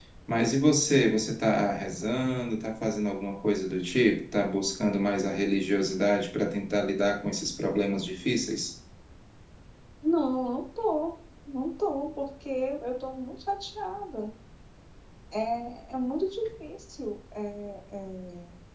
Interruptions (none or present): none